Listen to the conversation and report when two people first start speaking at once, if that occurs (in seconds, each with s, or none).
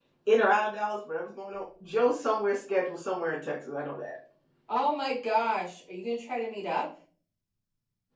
none